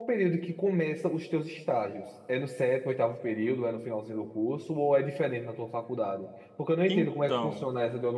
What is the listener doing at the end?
listening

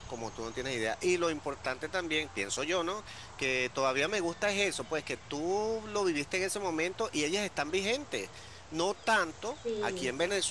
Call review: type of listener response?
listening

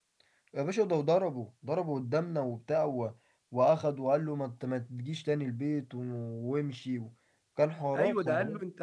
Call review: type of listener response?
taking over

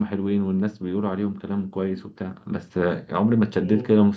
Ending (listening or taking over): listening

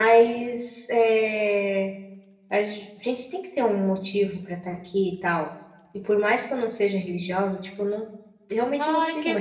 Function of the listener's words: taking over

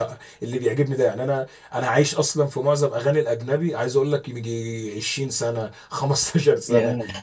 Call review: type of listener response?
listening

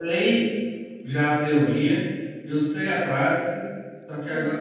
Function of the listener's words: listening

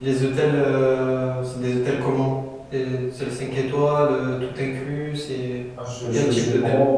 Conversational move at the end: taking over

